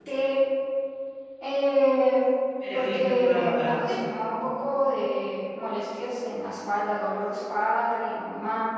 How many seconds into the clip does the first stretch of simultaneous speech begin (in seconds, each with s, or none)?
2.7 s